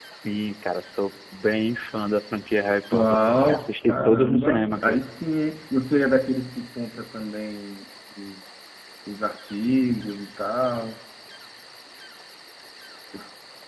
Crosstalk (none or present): present